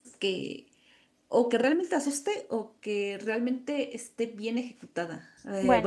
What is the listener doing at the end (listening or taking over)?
listening